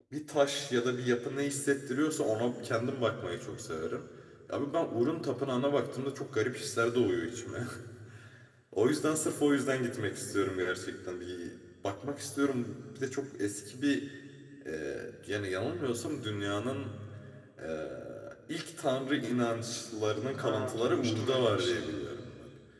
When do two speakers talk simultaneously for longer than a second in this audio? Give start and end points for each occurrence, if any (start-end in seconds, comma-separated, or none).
20.3-21.9